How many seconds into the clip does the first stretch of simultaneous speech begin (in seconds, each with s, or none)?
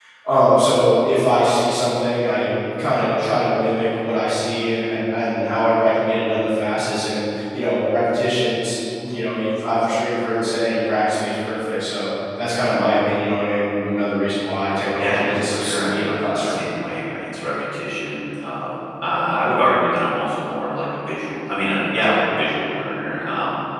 15.0 s